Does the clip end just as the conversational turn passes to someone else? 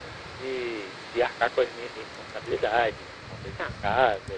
No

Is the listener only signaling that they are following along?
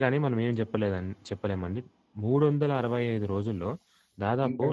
Yes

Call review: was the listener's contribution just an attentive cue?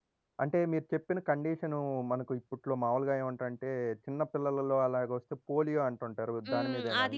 No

